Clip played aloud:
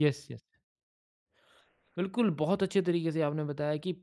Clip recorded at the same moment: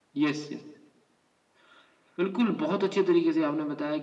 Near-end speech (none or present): none